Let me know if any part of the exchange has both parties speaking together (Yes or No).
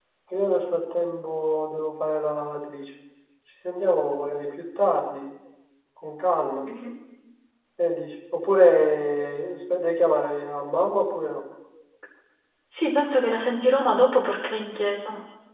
No